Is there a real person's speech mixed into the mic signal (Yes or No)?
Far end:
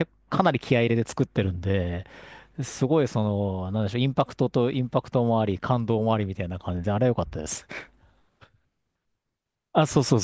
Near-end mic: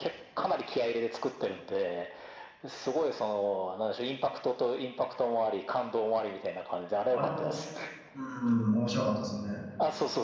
Yes